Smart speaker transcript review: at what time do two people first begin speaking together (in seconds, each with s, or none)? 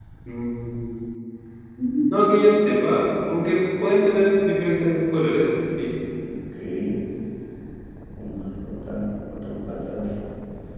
none